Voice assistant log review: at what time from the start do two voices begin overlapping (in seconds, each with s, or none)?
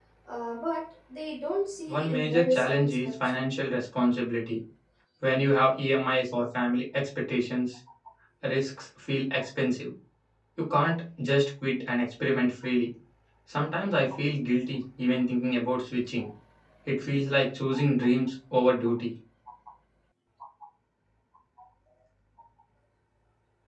1.9 s